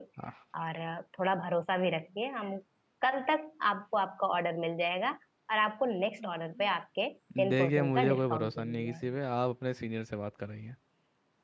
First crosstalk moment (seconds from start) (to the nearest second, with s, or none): 7 s